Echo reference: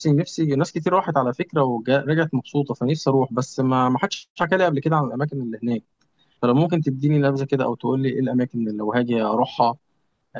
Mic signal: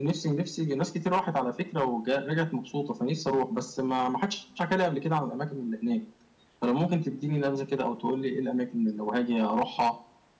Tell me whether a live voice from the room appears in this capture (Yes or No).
No